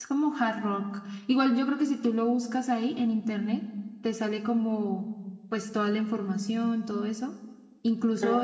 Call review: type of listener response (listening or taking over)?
listening